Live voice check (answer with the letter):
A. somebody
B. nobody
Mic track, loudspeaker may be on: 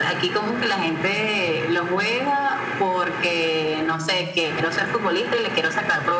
B